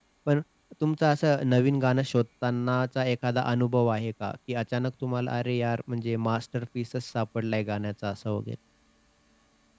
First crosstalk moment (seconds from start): none

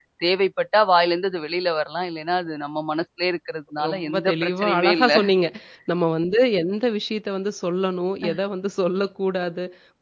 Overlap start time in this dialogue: 3.8 s

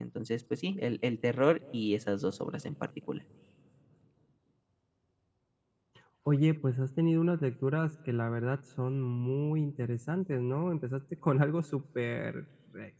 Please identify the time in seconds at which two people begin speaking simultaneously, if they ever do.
none

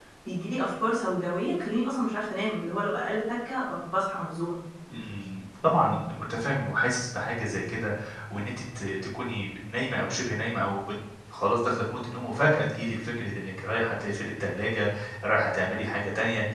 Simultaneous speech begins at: none

